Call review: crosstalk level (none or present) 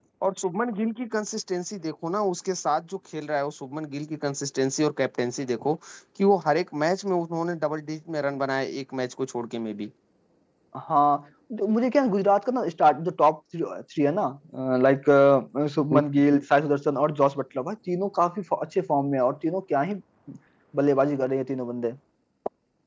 none